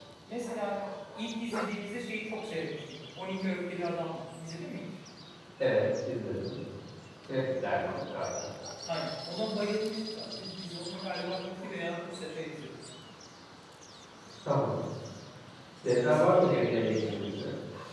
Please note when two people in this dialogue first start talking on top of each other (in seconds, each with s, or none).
16.0 s